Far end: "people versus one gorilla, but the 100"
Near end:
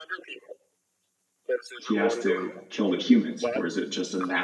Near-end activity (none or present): present